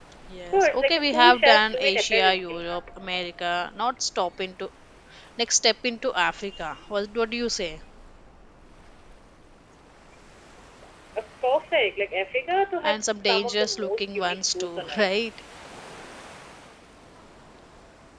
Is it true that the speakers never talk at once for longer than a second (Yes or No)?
No